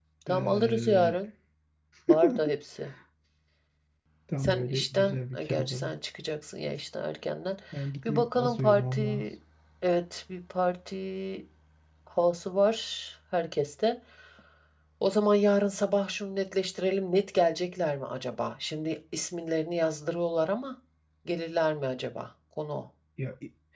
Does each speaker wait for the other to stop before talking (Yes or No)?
No